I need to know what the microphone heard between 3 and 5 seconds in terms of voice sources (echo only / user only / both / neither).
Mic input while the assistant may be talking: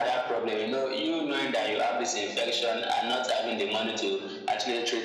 echo only